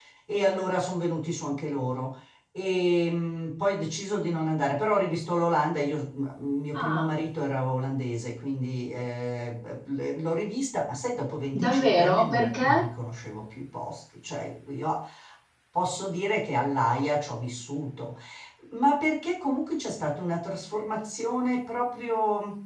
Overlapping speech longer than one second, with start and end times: 11.6-12.8

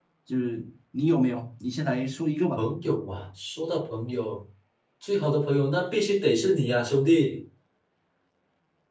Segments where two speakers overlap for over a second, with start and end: none

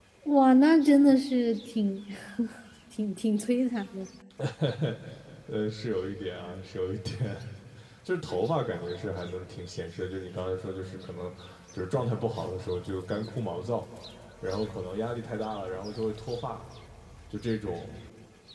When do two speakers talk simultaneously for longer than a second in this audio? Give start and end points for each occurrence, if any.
none

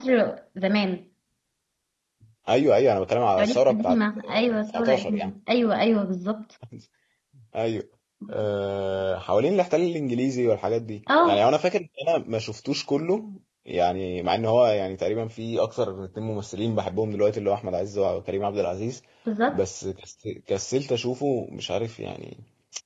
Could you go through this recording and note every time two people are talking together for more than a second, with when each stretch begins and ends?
3.4-5.3

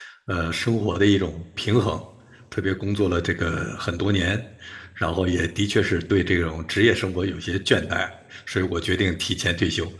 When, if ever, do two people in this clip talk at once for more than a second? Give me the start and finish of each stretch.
none

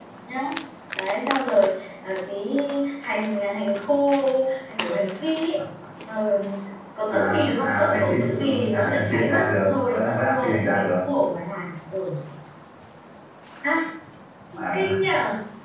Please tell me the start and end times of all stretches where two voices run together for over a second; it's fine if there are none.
7.1-10.9

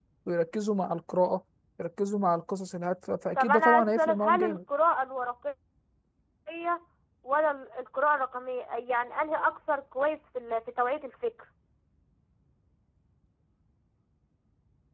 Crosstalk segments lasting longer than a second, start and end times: 3.4-4.6

